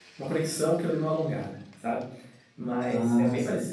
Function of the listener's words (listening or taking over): listening